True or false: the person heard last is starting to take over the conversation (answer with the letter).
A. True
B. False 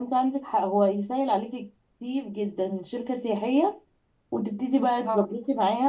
B